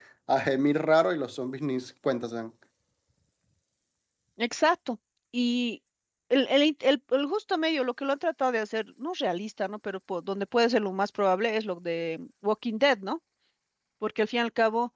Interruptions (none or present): none